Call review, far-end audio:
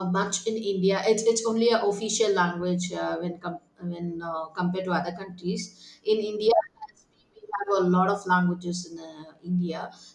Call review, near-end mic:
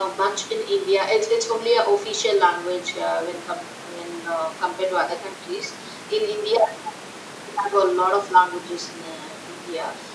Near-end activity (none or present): none